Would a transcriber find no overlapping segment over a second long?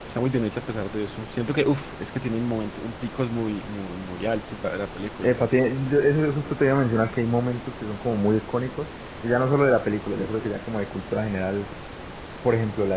Yes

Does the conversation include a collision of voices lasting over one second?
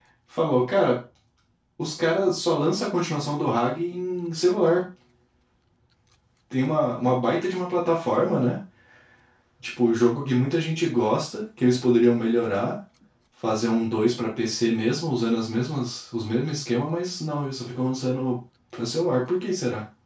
No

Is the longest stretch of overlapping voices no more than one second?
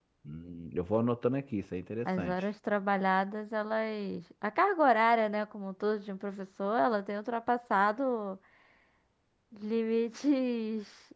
Yes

